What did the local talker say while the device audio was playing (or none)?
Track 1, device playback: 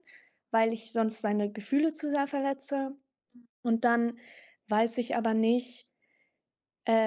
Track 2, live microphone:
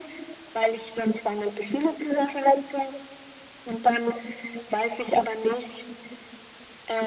none